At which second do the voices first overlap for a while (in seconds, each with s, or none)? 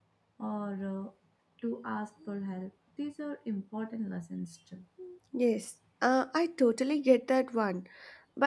none